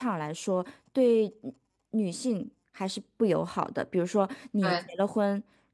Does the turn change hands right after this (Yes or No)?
No